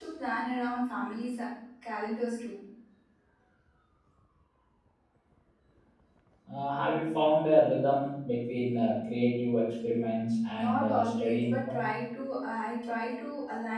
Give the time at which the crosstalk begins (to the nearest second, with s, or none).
11 s